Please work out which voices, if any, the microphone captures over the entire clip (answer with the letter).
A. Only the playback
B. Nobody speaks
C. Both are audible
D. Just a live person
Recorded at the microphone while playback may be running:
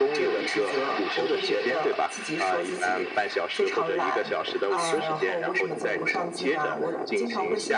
C